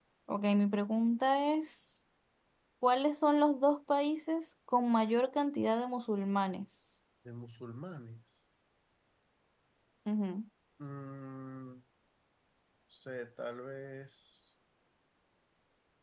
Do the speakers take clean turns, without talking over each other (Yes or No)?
Yes